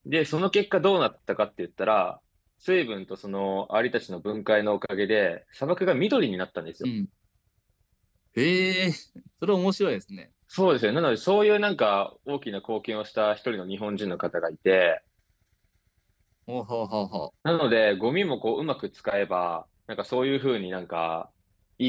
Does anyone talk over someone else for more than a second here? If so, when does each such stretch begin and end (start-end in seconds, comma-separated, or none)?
none